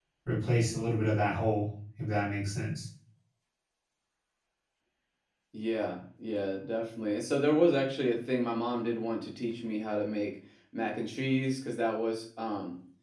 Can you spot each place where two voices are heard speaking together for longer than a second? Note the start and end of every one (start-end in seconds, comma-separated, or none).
none